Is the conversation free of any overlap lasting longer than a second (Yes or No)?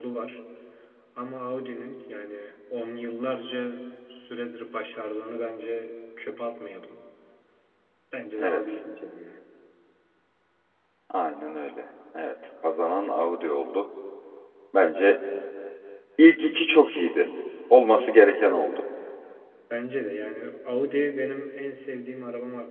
Yes